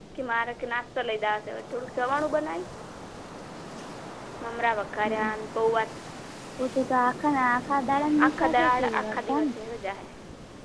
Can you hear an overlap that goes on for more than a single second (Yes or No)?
Yes